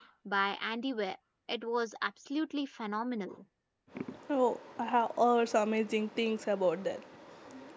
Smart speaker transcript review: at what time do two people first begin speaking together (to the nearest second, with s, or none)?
none